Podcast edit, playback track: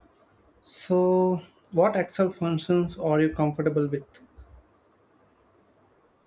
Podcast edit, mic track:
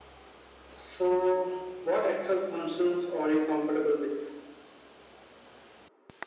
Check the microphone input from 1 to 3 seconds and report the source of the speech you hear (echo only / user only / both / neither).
echo only